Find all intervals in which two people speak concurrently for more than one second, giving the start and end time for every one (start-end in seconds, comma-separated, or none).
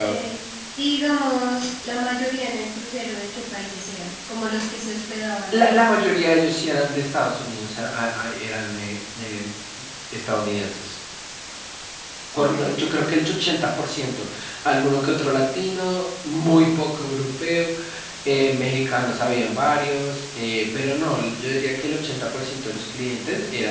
none